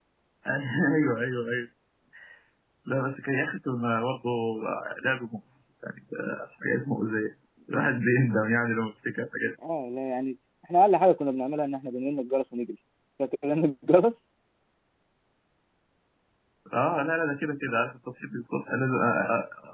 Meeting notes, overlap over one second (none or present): none